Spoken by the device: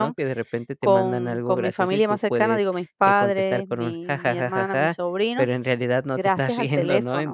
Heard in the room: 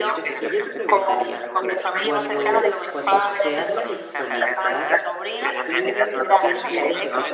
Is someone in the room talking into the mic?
Yes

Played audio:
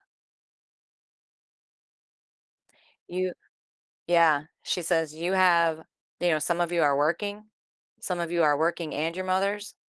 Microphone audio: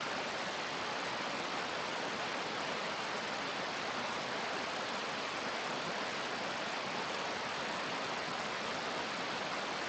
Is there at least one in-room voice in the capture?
No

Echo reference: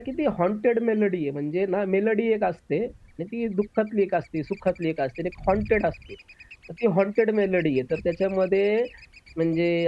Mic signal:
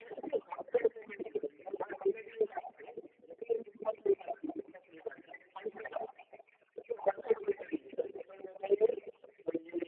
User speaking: No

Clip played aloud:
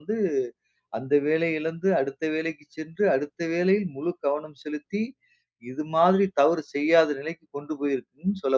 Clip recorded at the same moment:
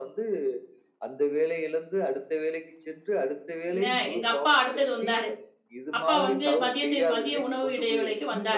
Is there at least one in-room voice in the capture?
Yes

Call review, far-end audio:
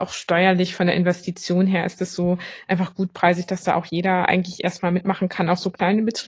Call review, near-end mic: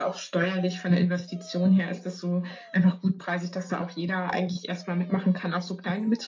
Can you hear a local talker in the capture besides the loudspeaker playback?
No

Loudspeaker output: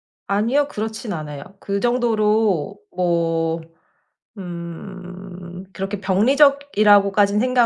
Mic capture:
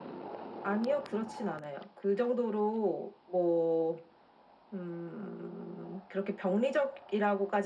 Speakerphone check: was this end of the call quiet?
Yes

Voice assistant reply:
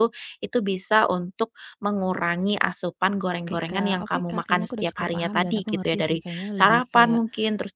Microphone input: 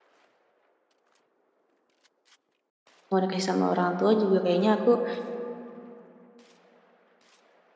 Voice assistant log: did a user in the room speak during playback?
Yes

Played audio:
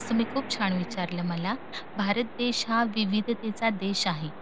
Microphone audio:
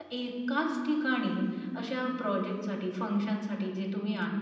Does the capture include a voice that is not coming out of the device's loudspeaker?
Yes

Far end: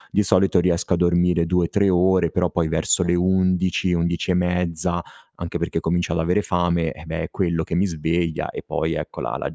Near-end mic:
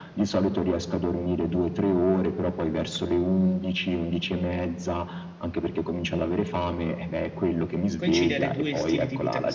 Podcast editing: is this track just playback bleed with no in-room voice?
No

